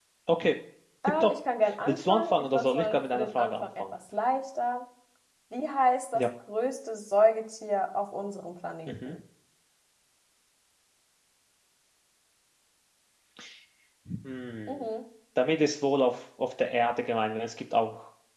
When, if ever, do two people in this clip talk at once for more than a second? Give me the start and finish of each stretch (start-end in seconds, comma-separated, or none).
1.9-3.8